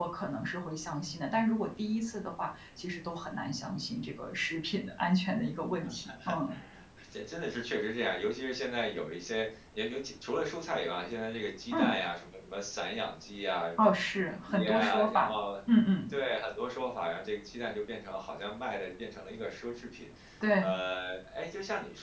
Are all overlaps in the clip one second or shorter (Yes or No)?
No